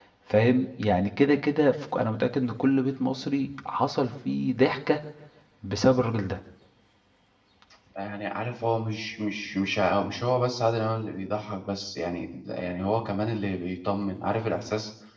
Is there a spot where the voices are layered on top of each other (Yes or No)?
No